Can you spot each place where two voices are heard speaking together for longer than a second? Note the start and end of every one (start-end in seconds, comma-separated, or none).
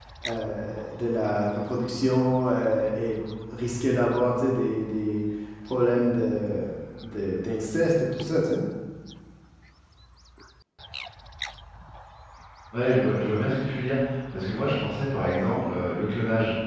none